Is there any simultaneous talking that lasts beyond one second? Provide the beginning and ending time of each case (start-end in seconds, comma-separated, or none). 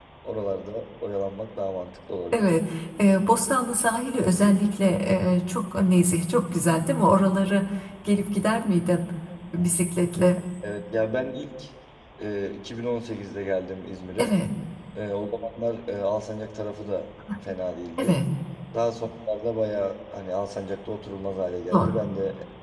none